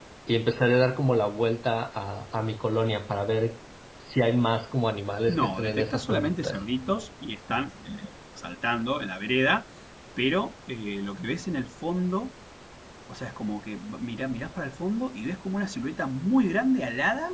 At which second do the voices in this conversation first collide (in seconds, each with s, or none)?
5.3 s